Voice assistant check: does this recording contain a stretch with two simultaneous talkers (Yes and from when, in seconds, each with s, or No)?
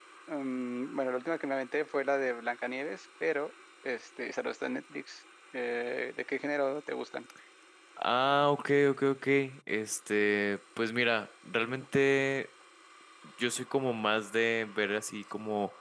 No